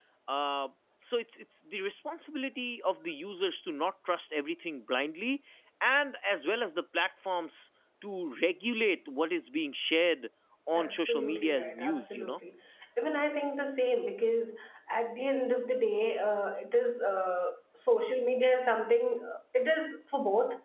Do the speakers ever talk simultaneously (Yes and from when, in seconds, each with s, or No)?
Yes, from 10.7 s